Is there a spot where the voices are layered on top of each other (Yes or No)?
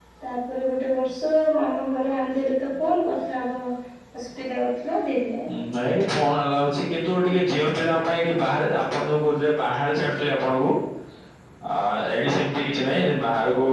No